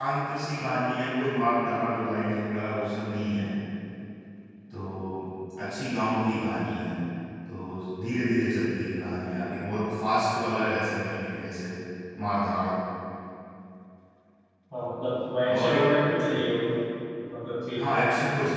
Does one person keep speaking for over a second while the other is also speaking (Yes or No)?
No